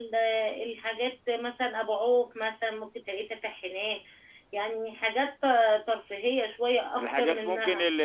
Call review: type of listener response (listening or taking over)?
taking over